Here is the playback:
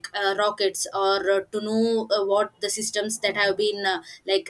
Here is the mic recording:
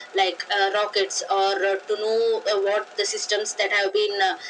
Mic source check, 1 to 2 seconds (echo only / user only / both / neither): echo only